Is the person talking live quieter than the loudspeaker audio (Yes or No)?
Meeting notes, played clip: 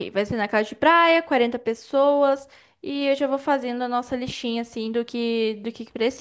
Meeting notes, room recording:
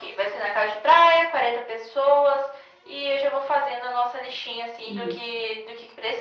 Yes